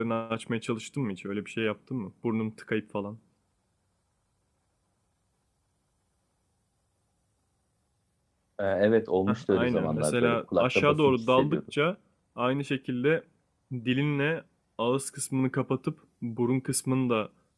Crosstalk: present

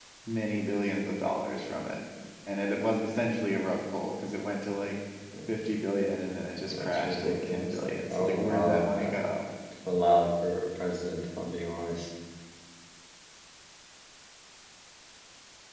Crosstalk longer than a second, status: present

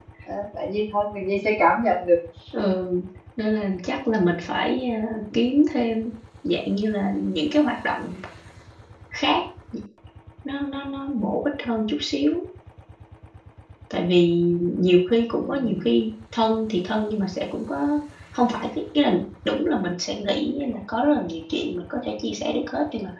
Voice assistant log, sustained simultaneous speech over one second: none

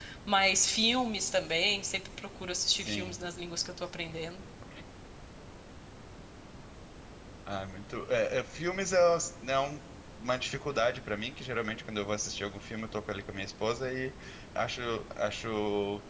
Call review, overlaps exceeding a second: none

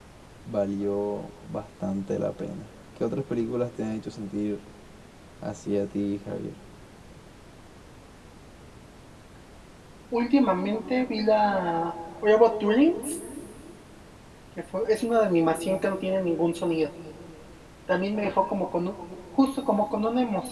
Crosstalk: none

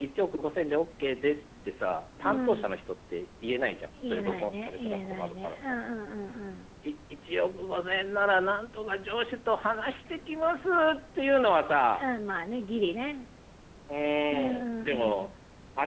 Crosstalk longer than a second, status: present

